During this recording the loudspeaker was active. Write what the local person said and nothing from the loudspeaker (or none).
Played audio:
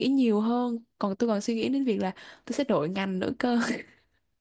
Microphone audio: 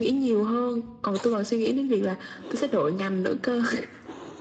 none